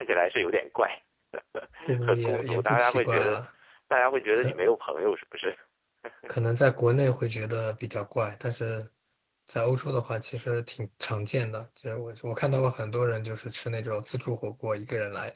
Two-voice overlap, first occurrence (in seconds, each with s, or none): 2.0 s